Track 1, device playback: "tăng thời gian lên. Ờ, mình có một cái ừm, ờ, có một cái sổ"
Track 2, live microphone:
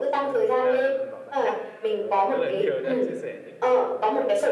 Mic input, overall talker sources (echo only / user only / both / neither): both